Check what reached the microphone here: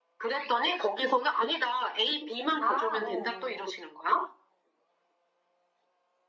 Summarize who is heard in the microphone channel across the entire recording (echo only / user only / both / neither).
both